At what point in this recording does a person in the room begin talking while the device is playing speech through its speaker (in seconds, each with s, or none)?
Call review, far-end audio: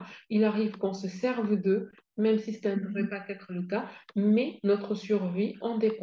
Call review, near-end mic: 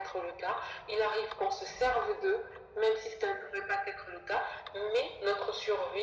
none